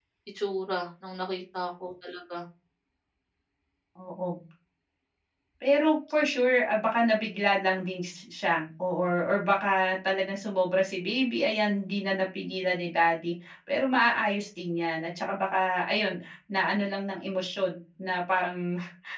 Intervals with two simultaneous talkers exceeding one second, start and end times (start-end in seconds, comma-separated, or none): none